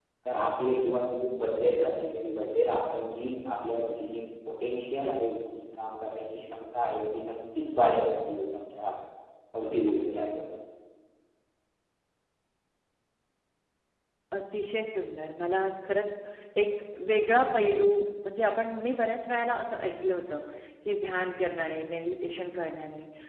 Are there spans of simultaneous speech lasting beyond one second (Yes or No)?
No